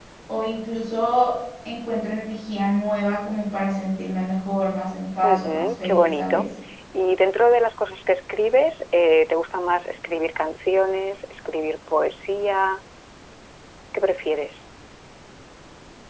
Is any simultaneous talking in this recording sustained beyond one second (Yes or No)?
Yes